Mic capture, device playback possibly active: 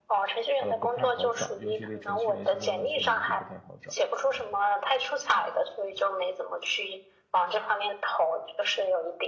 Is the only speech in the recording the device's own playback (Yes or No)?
No